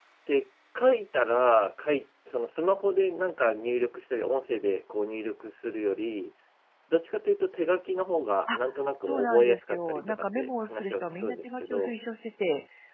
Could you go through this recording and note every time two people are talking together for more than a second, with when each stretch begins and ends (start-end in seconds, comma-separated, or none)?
9.1-11.9